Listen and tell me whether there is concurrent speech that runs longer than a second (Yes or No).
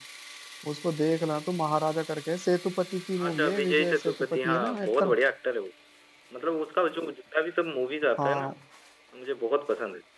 Yes